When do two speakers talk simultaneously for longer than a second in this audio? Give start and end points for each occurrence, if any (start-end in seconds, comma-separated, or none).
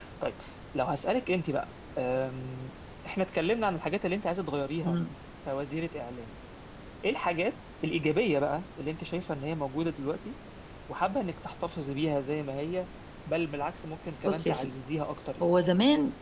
none